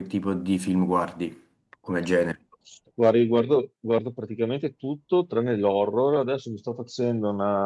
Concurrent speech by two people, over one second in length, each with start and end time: none

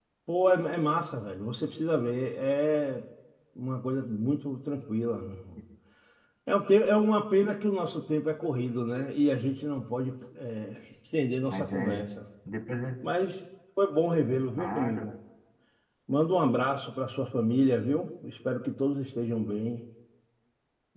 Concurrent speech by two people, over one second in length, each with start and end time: none

